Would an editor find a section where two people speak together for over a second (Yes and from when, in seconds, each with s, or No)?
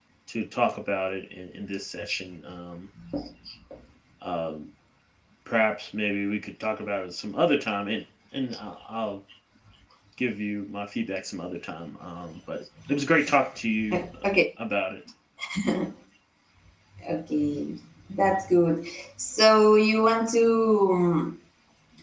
No